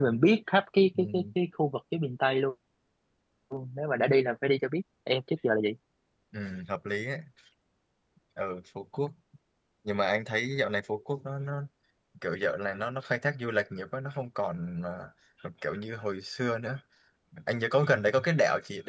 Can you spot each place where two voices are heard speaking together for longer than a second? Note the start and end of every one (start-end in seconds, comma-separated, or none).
none